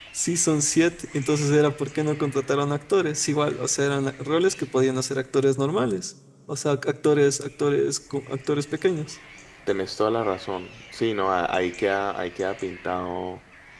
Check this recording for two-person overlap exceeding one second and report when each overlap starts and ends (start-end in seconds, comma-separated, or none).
none